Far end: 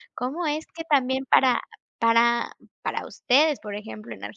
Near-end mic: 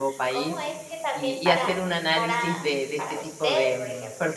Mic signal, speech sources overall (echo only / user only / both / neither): both